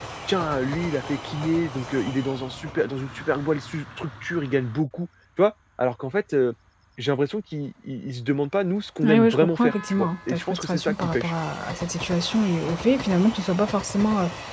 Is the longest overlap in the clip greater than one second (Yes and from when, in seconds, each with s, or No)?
Yes, from 9.0 s